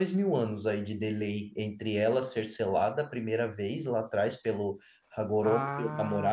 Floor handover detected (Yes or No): Yes